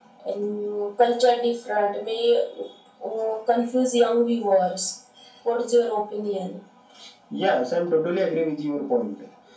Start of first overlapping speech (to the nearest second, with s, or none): none